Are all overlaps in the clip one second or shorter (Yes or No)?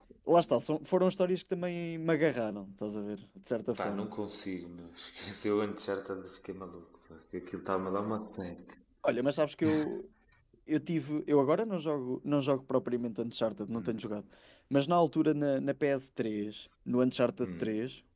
Yes